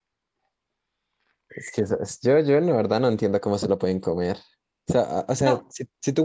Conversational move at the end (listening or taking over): listening